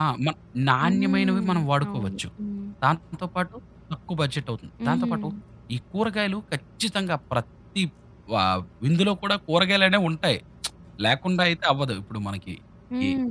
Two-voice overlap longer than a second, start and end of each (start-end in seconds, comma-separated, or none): 0.8-2.2